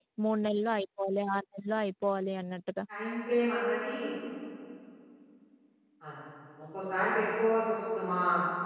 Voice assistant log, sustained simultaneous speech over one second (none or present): none